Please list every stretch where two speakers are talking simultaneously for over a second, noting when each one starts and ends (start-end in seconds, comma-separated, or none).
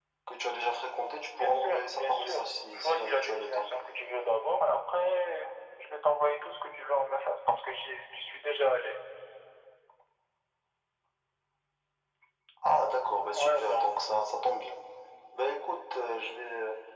1.4-3.6